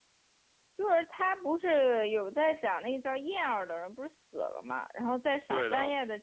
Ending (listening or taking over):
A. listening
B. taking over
A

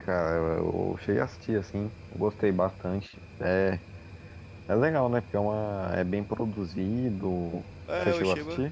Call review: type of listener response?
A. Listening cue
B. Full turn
B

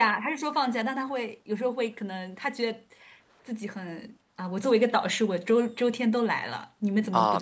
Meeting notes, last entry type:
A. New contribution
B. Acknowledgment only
A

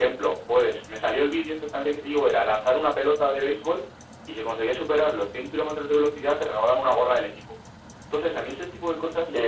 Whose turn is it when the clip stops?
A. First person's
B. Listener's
B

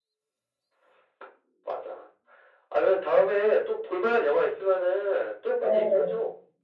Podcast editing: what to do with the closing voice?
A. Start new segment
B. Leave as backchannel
A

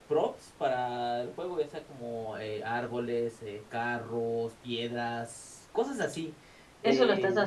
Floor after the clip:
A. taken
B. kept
A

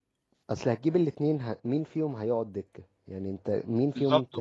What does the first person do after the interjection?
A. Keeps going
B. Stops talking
B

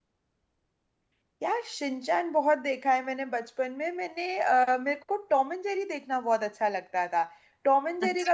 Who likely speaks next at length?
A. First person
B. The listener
A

